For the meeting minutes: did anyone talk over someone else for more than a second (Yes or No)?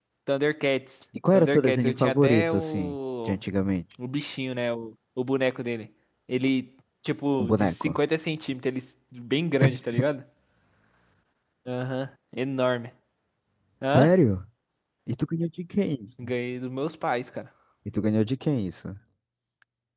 Yes